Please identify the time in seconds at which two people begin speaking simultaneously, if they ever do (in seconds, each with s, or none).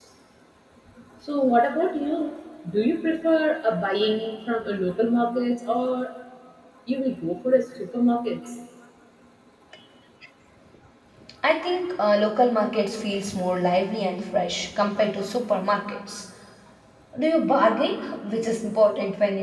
none